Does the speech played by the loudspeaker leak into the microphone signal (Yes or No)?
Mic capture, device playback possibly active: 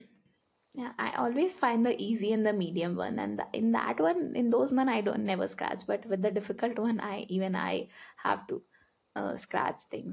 No